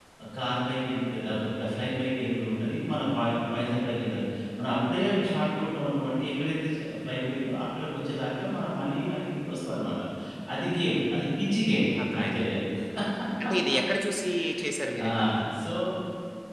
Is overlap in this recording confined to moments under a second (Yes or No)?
Yes